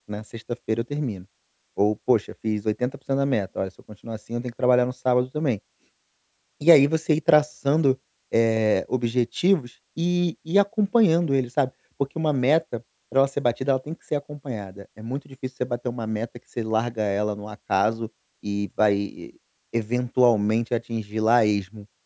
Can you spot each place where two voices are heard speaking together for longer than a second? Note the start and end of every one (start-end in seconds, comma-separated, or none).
none